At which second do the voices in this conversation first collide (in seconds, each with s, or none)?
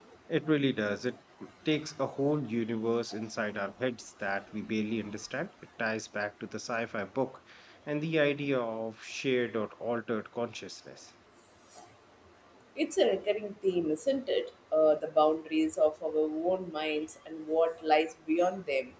none